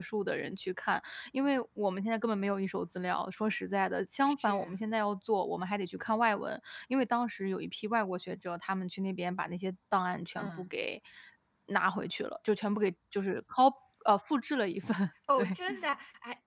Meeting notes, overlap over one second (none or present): none